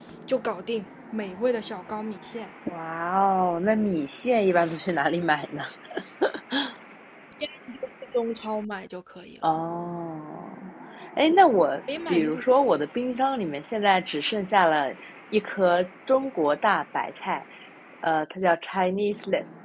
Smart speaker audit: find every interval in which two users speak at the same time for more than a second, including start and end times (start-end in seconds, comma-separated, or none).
none